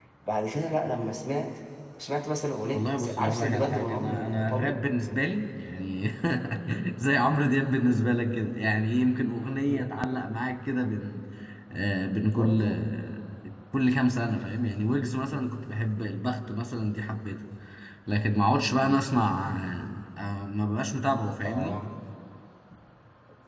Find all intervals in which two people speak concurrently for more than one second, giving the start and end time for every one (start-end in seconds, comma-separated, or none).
2.7-4.8